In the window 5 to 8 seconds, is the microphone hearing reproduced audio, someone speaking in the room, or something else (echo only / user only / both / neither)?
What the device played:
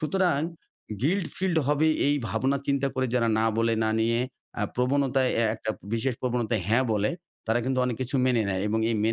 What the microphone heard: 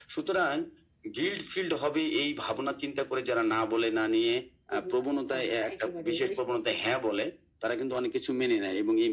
both